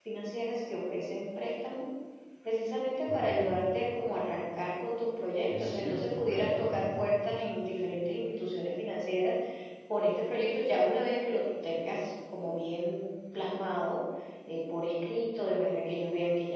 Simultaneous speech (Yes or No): Yes